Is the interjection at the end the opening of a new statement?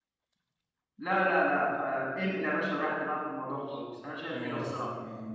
Yes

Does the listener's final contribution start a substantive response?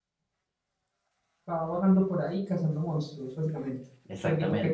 Yes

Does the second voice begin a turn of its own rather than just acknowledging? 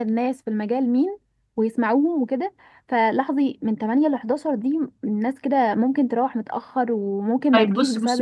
Yes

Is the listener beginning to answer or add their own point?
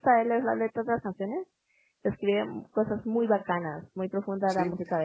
Yes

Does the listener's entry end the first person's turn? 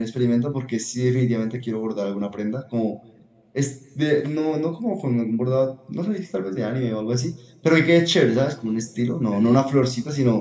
No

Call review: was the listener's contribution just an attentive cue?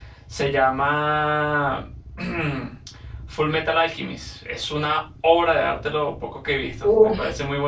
No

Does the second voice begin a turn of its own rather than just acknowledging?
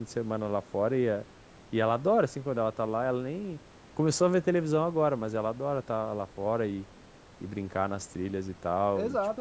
Yes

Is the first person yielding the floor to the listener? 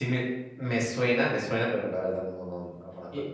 Yes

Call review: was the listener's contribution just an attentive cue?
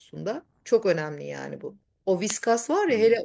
Yes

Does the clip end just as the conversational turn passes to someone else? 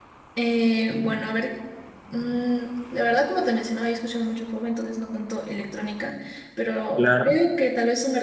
No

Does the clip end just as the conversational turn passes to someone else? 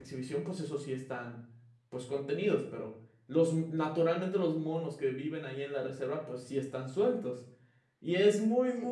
No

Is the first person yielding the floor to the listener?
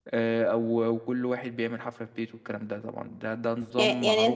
Yes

